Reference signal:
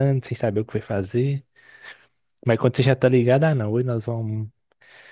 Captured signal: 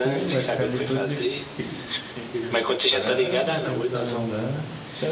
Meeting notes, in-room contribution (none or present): present